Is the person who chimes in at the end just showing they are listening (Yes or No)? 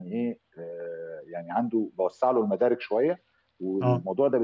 Yes